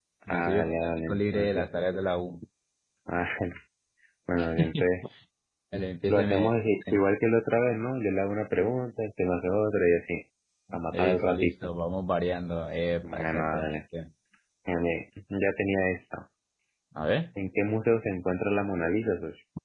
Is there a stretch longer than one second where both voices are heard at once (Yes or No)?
Yes